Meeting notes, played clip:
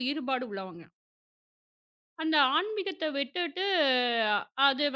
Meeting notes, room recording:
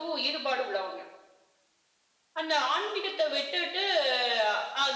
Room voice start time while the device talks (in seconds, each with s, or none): none